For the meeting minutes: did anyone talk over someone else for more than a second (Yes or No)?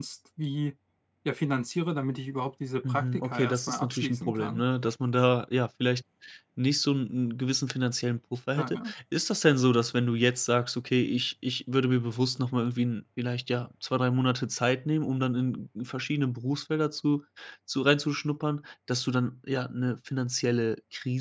Yes